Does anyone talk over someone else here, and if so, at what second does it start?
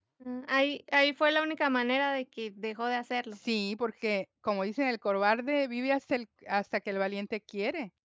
none

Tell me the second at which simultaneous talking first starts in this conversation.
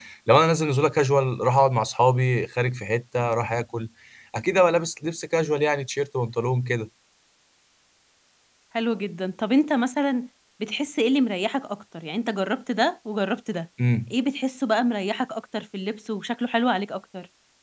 none

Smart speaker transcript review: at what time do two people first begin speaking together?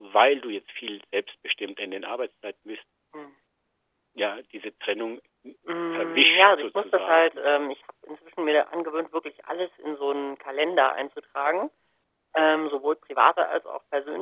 5.9 s

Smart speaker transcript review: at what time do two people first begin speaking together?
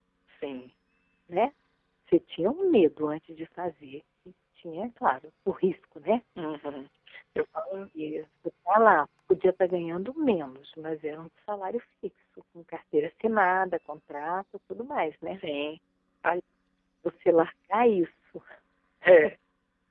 none

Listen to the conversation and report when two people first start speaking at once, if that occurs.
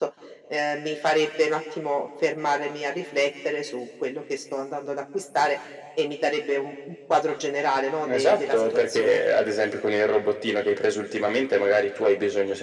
8.0 s

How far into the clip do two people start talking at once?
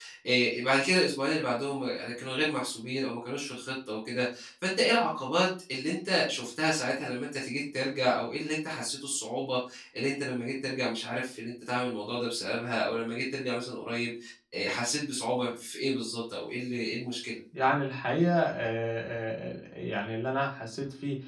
none

